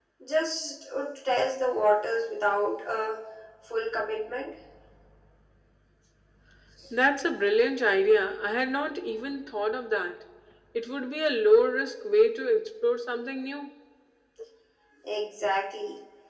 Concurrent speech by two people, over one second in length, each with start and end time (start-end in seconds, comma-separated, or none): none